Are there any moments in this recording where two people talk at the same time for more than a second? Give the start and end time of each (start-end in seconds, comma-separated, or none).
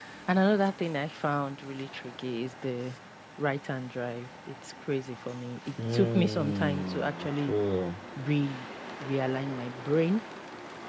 5.9-7.5